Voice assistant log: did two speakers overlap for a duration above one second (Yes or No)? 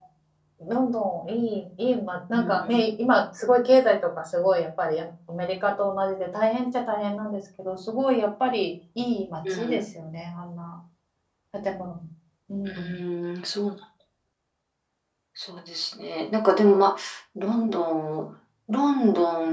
No